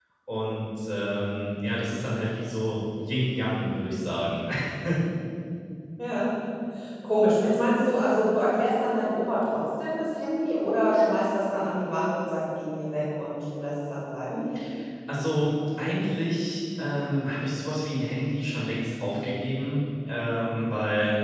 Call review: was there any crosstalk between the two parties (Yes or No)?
No